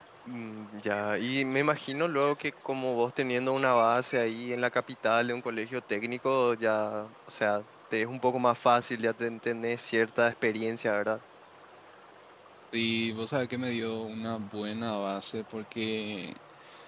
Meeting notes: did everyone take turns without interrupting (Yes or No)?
Yes